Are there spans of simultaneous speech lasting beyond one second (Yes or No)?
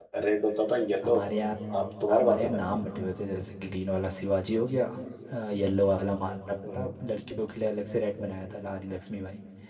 No